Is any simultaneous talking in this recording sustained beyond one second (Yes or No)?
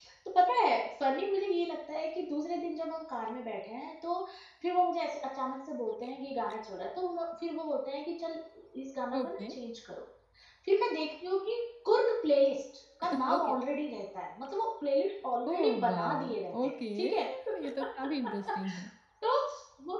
Yes